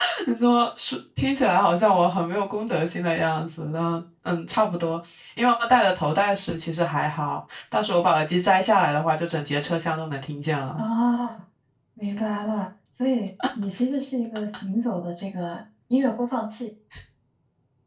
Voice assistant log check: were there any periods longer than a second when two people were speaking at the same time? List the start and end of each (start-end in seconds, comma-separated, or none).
none